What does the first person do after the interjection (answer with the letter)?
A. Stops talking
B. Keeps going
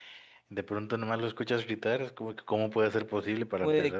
A